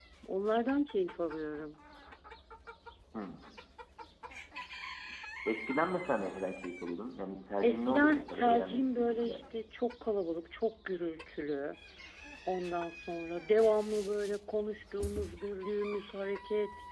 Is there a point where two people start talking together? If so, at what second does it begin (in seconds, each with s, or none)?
7.6 s